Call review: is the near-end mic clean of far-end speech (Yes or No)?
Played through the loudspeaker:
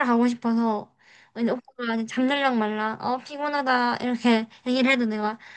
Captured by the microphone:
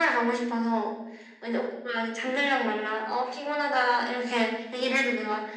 No